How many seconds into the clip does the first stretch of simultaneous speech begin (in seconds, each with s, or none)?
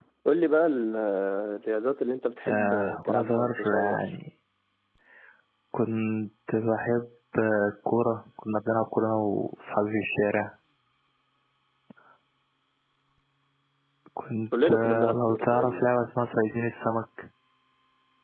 2.5 s